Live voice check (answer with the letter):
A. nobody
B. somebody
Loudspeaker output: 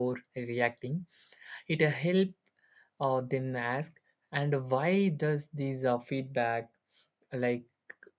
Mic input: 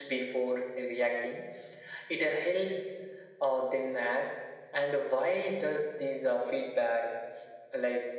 A